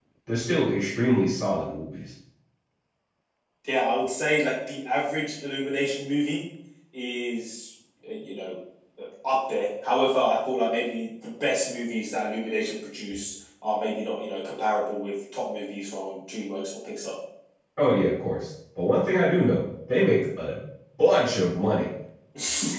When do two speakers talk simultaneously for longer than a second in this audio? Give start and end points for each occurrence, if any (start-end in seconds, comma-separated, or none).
none